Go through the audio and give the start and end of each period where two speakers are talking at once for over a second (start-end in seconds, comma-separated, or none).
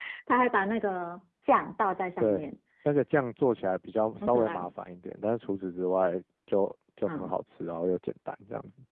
none